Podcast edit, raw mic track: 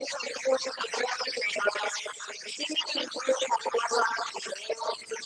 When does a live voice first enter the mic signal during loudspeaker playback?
none

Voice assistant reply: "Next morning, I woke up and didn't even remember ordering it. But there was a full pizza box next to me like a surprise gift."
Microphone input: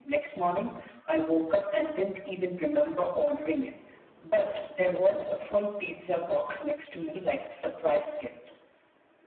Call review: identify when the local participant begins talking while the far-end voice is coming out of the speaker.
none

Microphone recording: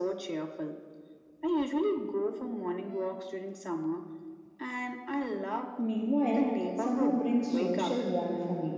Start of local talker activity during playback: 6 s

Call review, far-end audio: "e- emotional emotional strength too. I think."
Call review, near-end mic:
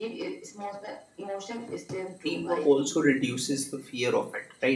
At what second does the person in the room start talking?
2 s

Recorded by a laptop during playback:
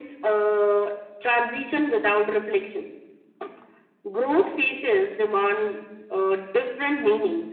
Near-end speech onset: none

